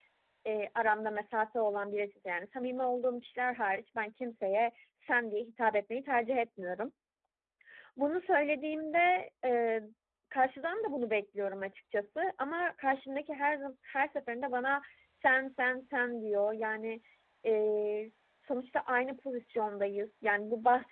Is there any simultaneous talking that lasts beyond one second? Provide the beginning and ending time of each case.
none

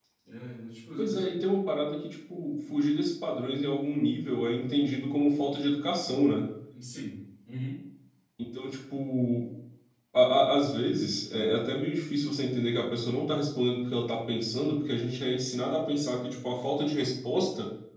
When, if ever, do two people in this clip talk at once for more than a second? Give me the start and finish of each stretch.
none

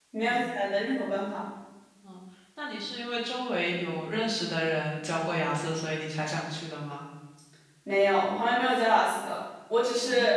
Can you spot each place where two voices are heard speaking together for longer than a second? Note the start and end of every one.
none

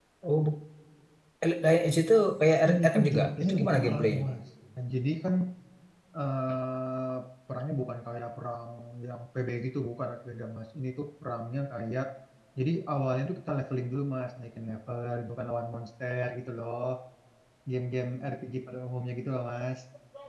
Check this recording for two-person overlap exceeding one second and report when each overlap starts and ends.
2.7-4.2

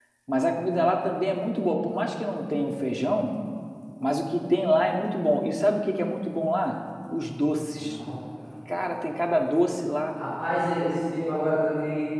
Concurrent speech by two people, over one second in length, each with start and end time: none

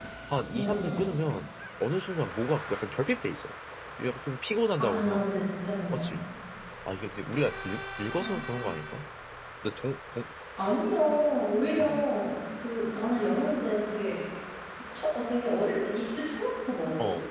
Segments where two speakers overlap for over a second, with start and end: none

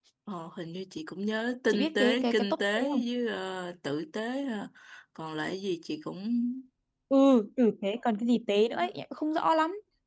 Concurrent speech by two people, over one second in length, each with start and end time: 1.7-3.0

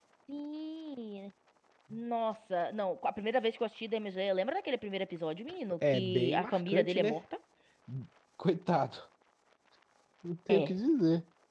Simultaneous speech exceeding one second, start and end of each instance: 5.8-7.2

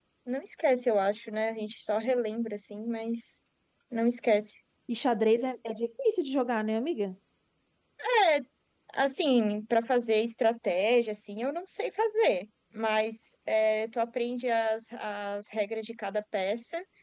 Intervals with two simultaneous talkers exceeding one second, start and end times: none

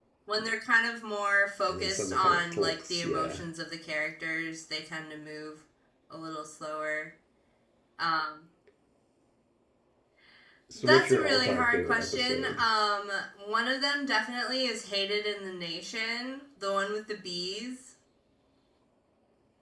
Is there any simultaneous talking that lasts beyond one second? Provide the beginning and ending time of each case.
1.7-3.4, 10.8-12.6

